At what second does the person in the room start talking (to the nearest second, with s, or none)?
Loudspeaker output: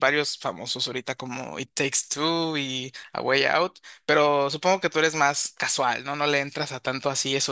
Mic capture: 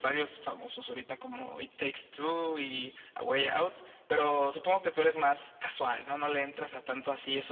none